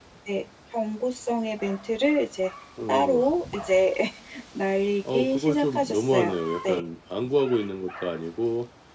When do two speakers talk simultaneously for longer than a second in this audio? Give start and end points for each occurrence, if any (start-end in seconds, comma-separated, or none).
5.1-6.8